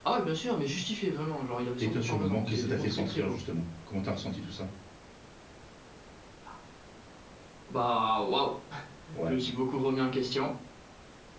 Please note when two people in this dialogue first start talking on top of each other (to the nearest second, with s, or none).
2 s